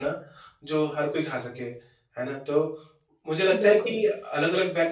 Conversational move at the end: listening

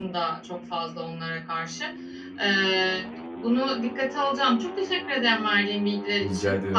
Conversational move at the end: listening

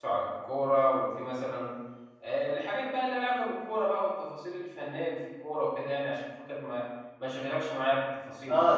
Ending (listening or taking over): taking over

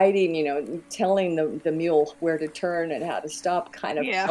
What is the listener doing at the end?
listening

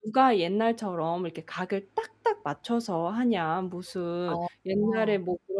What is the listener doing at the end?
listening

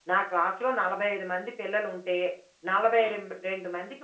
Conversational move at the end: listening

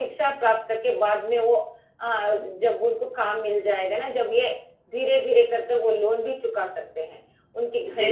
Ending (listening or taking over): listening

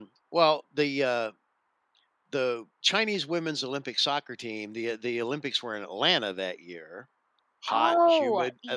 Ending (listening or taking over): taking over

